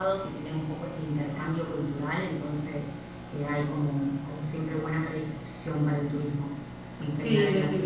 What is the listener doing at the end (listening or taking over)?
taking over